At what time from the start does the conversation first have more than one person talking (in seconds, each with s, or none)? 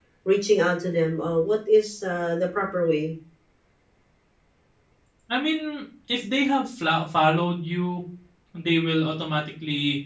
none